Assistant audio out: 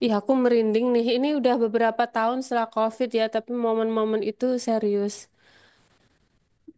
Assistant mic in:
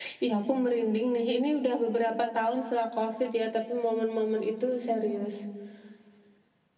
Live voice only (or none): none